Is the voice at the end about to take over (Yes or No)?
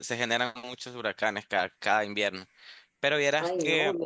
Yes